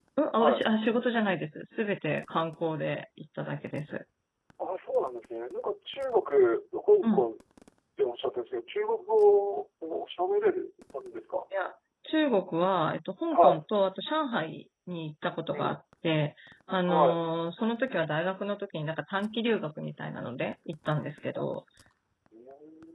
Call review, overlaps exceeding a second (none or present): none